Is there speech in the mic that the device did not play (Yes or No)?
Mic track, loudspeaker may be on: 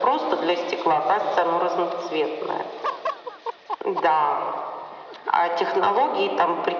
No